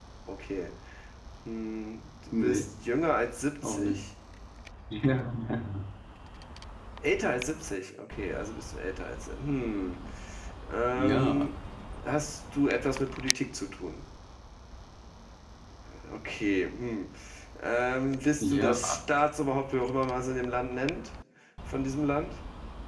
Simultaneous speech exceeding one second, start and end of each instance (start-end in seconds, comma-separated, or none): none